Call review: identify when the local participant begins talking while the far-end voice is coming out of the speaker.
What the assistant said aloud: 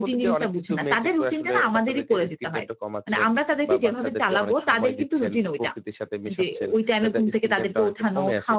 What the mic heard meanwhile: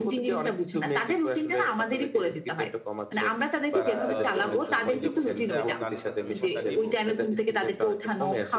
3.8 s

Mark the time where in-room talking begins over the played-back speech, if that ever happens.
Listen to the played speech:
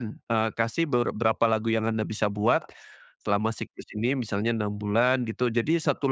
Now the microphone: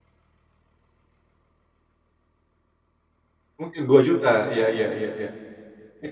3.6 s

